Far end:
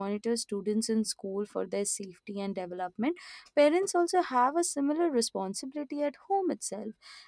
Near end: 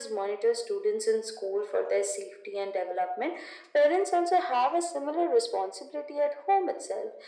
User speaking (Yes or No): No